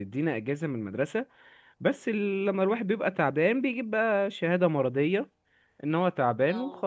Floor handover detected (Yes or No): No